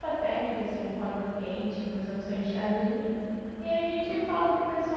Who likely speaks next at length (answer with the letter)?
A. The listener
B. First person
B